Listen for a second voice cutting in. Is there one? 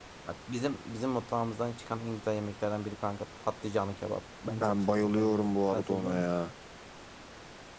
Yes, from 4.5 s

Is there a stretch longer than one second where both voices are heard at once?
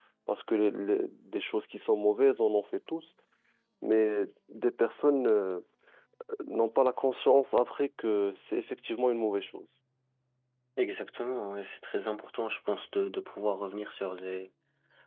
No

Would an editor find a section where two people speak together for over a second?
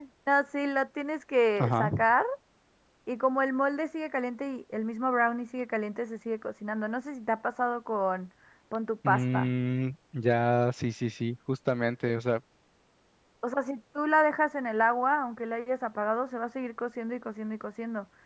No

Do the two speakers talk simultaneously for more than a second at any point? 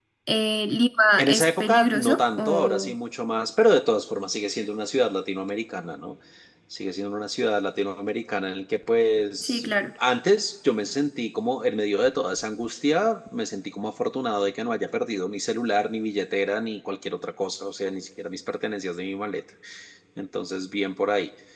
Yes, from 1.2 s

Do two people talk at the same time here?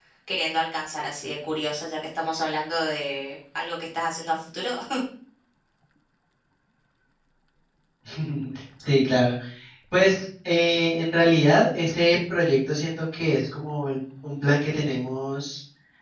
No

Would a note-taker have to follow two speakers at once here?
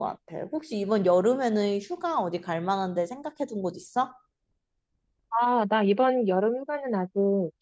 No

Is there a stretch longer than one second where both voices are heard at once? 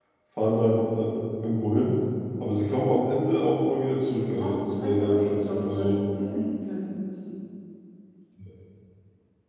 Yes, from 4.3 s

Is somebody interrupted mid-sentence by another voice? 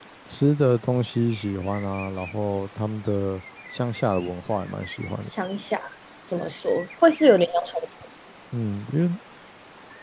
No

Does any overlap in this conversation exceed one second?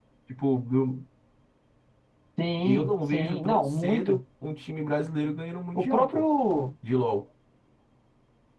Yes, from 2.6 s

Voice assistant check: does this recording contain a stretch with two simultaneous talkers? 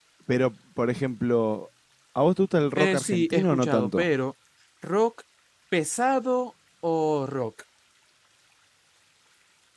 Yes, from 2.8 s

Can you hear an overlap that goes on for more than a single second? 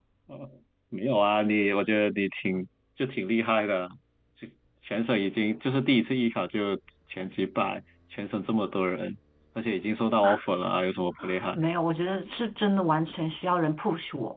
No

